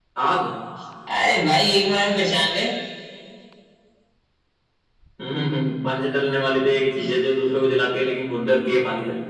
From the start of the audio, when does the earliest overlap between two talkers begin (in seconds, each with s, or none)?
none